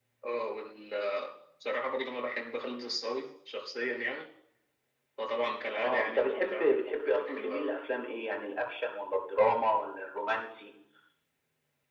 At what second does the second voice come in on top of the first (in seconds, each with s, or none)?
5.8 s